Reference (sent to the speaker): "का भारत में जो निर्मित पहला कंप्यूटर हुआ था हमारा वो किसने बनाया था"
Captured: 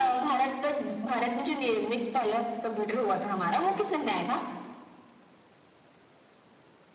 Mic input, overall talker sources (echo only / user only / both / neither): echo only